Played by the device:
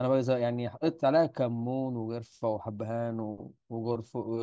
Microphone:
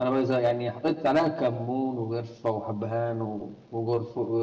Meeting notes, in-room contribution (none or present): none